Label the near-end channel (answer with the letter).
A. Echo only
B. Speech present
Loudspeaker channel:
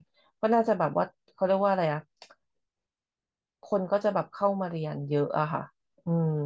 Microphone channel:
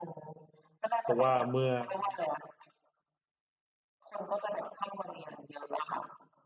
B